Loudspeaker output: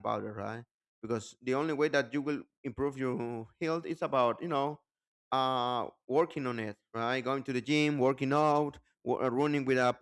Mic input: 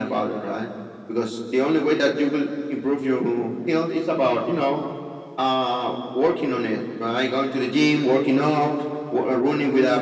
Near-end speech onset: none

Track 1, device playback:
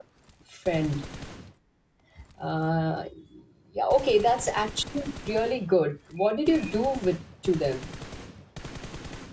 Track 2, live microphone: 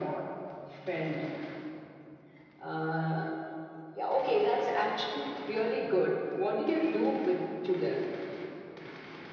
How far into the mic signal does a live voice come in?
none

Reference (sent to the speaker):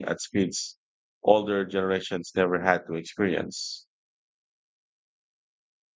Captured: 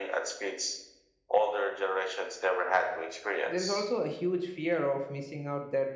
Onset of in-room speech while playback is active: 3 s

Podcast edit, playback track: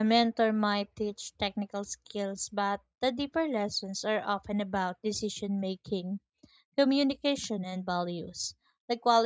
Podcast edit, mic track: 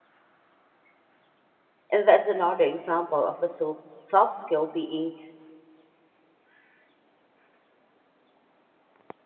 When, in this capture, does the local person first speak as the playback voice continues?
2 s

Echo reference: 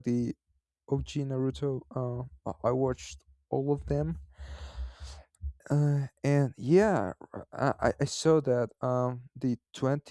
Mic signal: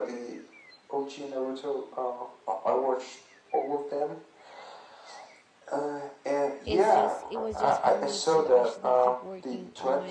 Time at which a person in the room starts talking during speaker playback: 7 s

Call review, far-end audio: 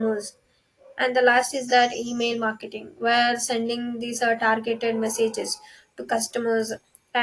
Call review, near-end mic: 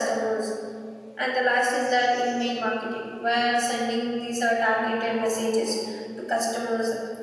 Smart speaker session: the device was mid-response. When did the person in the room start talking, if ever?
none

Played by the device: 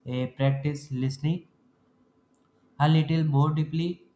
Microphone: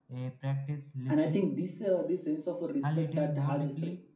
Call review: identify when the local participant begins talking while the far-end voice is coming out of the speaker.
1 s

